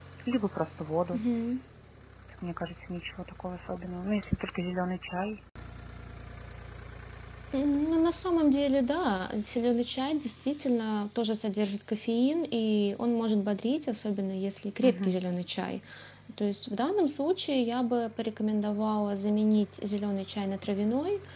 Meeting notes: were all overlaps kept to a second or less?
Yes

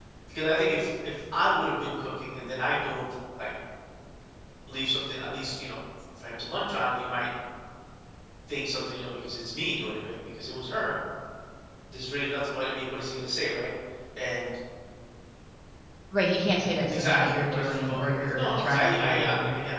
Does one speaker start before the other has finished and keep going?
Yes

